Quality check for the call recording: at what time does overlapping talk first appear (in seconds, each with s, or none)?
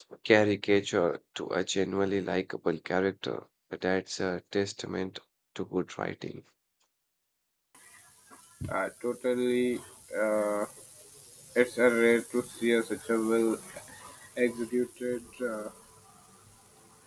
none